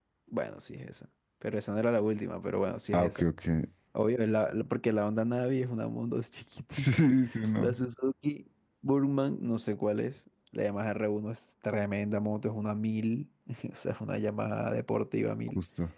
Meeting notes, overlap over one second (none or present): none